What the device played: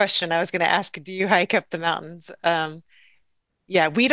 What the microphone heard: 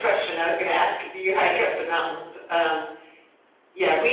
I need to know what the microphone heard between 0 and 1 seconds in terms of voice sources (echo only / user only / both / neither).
echo only